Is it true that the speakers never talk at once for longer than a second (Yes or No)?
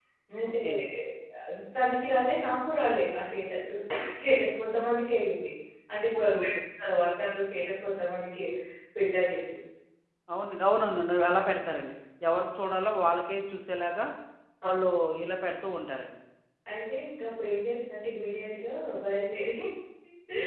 Yes